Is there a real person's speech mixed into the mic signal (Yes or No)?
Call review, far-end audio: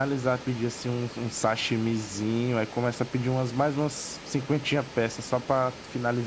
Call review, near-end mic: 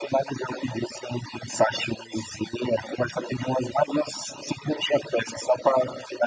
No